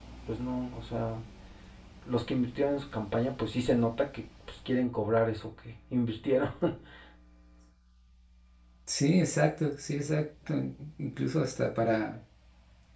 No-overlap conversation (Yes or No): Yes